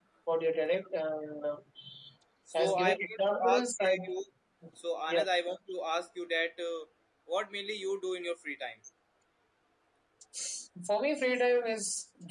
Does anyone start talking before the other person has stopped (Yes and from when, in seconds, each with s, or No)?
Yes, from 2.5 s